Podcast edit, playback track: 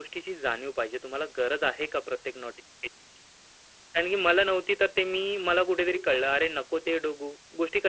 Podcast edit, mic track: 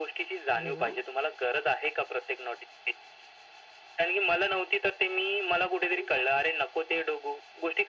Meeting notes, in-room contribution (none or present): present